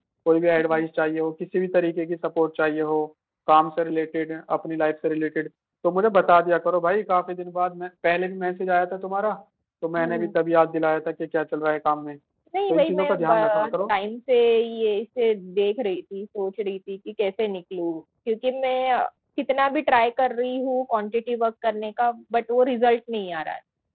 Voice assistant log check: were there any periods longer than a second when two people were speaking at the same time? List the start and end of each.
12.7-13.9

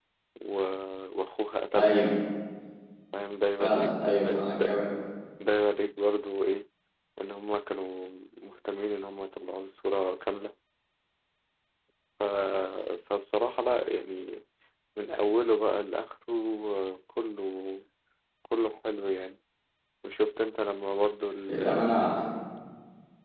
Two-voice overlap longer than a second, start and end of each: 3.6-4.8

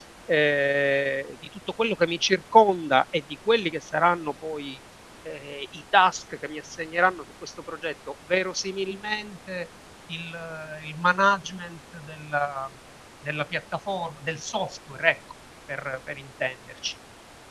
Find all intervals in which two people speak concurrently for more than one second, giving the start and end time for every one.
none

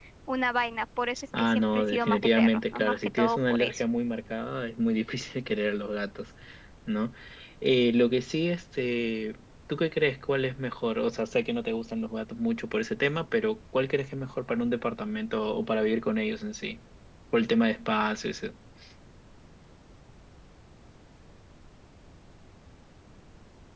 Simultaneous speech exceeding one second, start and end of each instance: 1.4-3.8

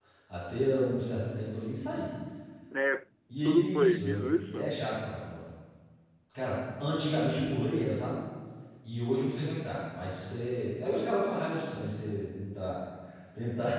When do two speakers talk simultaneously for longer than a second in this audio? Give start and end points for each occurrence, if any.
3.4-4.8

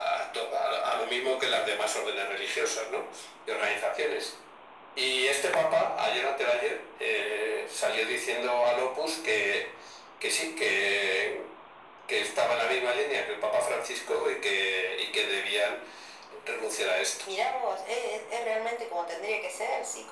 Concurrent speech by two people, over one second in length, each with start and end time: none

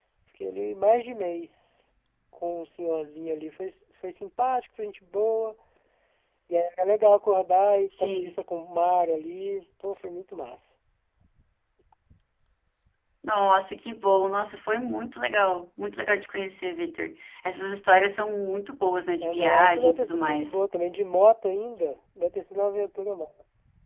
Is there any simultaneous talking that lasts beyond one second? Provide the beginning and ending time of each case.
19.2-20.6

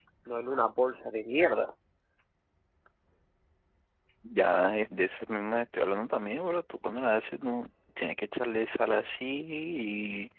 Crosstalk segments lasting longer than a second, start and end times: none

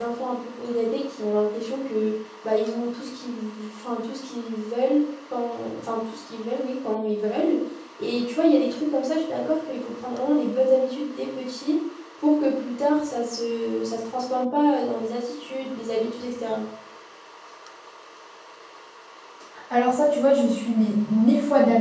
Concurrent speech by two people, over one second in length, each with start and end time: none

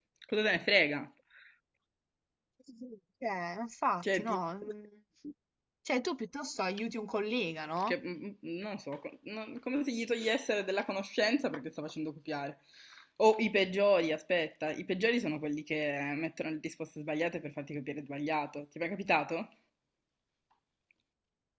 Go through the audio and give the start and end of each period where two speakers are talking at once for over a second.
none

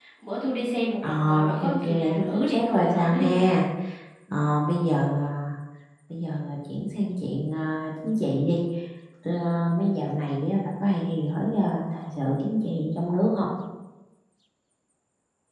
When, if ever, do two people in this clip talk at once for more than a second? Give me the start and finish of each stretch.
1.0-3.3

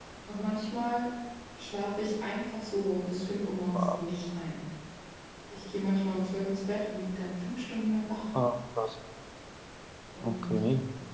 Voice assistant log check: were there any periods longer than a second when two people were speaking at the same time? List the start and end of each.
none

